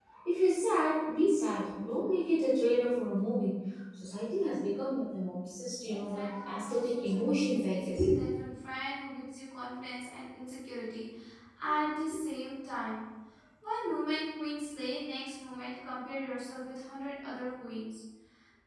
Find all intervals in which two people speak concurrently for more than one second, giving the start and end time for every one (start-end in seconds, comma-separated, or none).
5.9-8.0